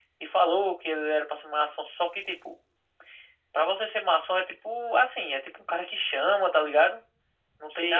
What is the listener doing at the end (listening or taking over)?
taking over